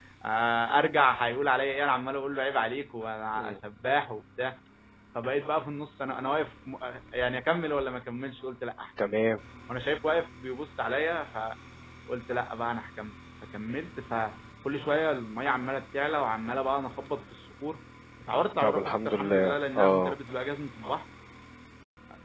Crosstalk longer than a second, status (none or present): present